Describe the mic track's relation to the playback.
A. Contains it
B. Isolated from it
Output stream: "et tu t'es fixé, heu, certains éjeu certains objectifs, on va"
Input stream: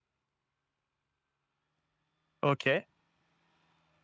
B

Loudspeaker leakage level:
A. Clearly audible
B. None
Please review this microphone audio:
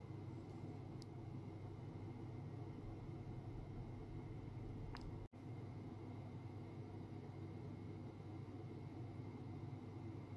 B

